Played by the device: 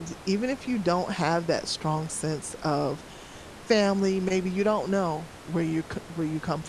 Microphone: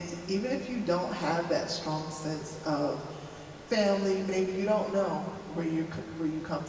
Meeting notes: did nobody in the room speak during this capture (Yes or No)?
Yes